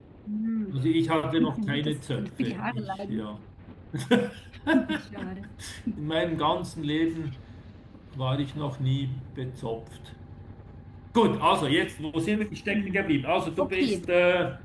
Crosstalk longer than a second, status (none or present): present